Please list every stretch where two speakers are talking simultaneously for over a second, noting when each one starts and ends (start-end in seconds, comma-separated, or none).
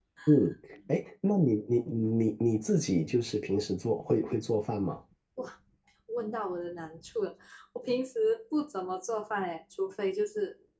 none